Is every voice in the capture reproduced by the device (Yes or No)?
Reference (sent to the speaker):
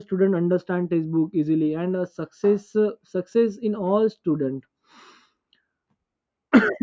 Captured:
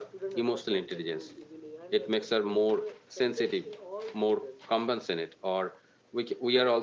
No